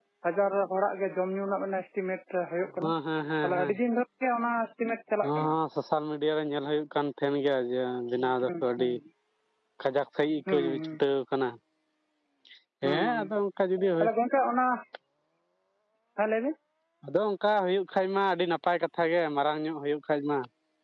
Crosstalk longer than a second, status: none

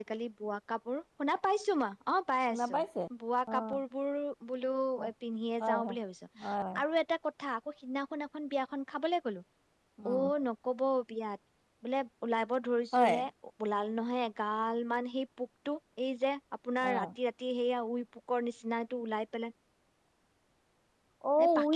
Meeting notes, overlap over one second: none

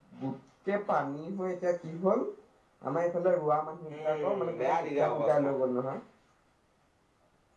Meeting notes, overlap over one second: present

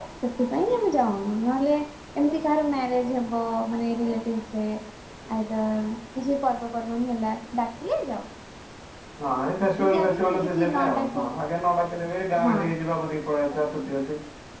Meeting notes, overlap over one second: present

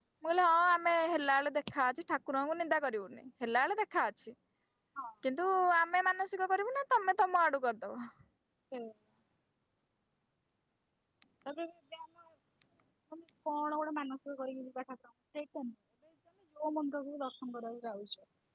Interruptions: none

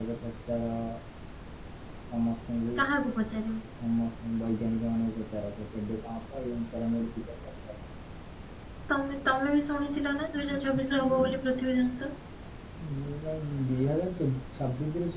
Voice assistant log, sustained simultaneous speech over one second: none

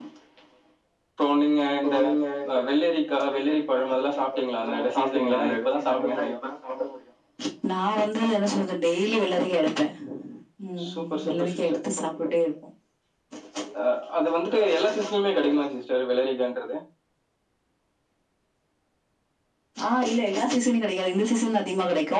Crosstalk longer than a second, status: present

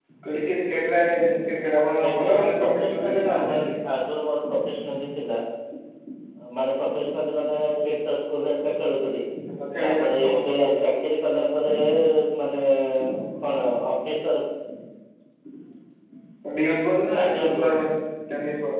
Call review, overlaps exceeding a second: present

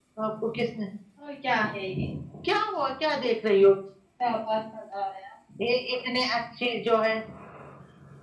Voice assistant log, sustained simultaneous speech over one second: none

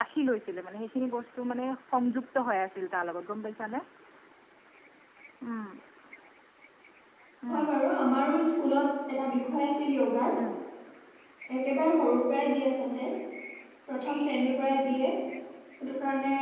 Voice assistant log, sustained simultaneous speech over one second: none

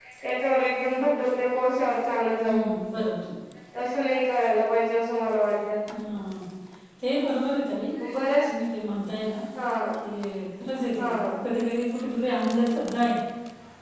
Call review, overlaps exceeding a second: none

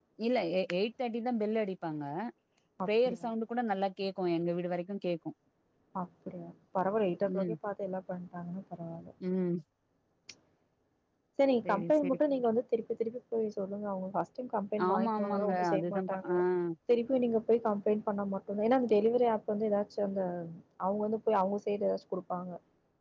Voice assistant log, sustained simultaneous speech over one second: present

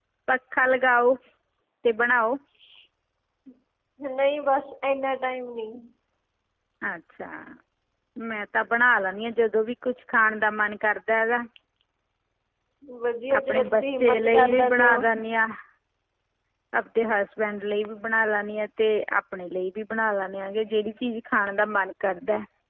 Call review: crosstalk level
present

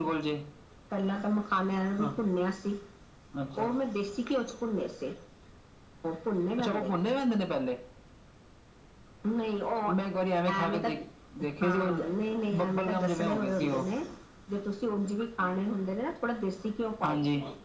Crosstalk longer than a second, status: present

